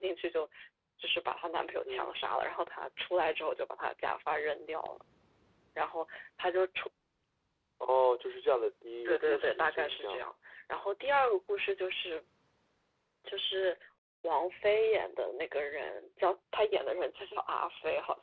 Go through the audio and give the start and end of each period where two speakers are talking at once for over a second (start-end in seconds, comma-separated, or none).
9.0-10.2